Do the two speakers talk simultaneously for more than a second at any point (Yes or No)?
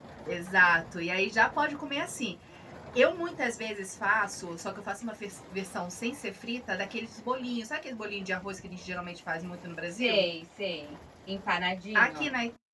No